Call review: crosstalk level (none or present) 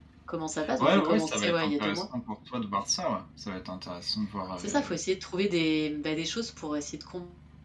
present